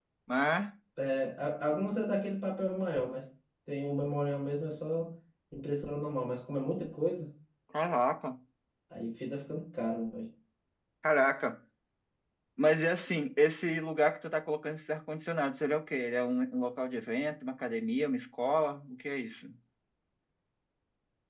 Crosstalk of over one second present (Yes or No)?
No